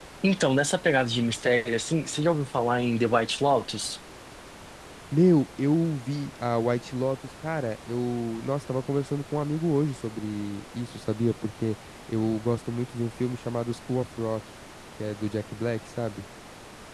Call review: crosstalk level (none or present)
none